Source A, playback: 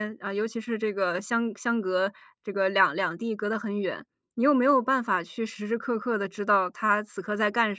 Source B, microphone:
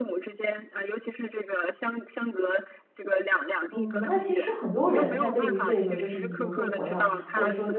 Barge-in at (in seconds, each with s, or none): 3.7 s